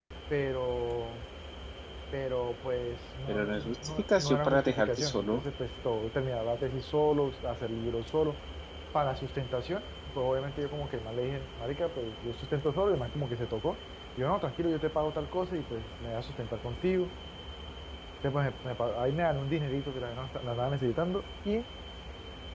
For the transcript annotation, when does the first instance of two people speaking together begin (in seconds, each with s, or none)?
3.3 s